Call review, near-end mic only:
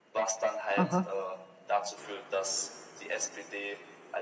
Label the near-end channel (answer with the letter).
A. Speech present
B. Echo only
A